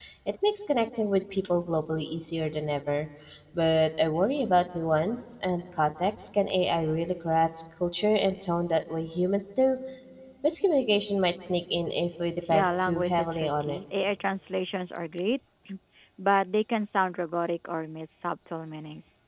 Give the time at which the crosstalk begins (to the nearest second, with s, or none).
12 s